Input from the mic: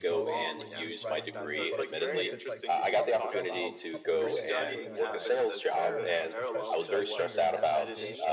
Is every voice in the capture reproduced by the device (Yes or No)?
No